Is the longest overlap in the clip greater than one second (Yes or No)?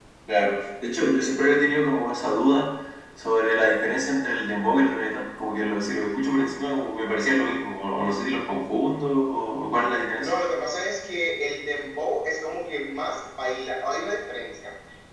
No